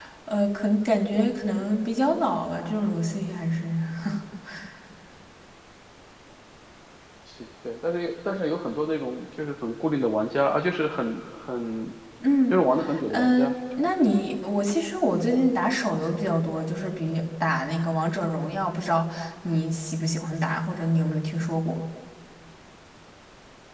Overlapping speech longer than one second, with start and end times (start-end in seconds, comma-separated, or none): none